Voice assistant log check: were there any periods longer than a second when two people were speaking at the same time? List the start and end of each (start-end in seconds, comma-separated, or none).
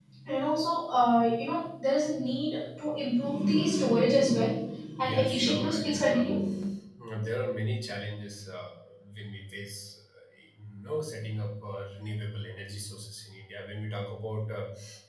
5.0-6.3